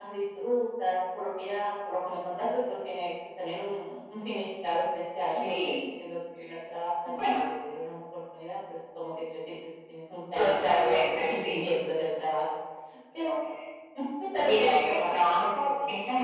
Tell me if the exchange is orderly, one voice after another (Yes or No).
No